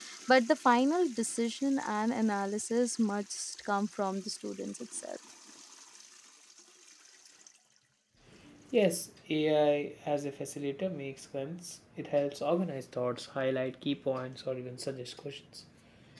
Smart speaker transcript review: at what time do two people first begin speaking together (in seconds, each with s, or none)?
none